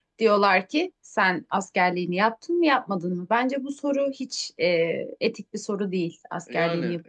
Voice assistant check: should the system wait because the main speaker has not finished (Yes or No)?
No